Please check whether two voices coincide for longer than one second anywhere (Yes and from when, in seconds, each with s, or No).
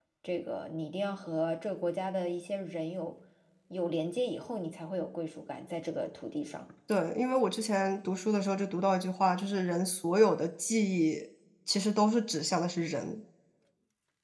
No